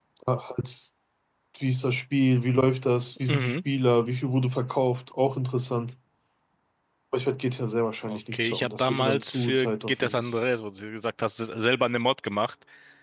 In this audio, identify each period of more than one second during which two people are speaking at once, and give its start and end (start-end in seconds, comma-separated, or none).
8.1-10.2